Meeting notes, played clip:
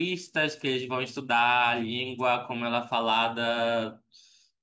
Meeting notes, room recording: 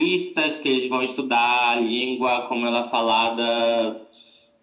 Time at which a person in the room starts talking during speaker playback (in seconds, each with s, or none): none